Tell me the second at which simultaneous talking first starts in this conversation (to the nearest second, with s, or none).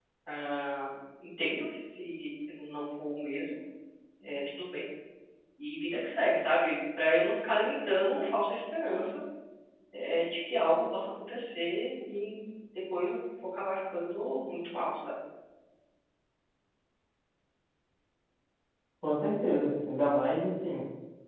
none